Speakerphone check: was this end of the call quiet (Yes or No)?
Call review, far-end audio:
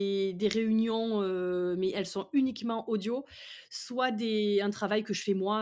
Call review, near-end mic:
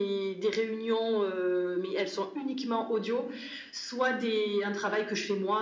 Yes